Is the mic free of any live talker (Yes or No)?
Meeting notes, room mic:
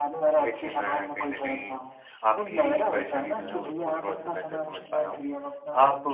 No